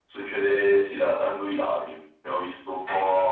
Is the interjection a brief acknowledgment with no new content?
Yes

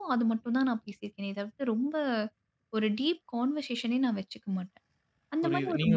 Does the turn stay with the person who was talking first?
No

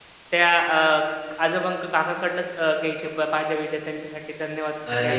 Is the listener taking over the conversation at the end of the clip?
Yes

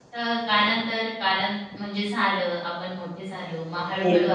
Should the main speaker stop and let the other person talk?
Yes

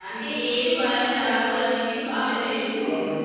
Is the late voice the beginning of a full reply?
Yes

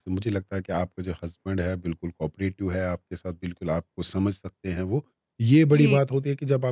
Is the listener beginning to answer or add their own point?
No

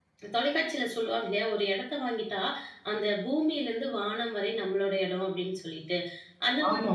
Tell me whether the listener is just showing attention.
Yes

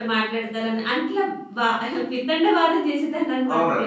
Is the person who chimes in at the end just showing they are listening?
No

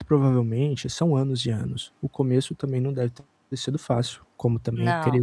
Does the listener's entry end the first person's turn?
No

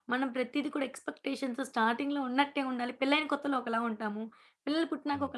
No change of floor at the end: Yes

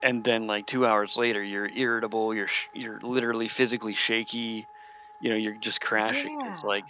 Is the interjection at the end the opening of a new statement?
No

